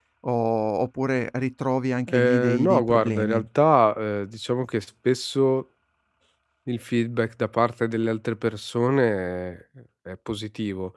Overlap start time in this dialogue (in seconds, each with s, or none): 2.1 s